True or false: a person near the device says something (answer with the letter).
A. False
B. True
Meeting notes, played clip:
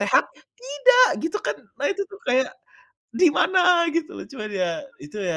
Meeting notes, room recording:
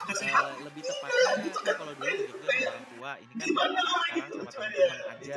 B